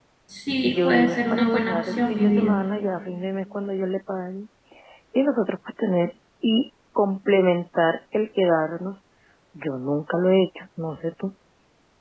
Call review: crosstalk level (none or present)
present